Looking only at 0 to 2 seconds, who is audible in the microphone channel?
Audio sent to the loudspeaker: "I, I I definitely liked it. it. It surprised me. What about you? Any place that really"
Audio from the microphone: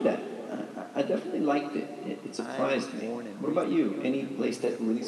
echo only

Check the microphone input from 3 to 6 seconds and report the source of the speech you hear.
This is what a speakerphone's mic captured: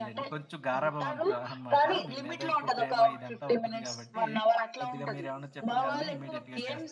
both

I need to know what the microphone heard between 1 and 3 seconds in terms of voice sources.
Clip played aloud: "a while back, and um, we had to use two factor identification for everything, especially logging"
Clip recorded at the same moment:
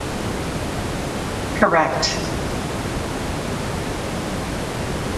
user only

